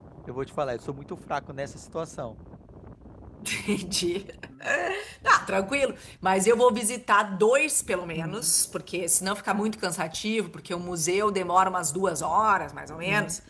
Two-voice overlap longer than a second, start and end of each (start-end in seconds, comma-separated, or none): none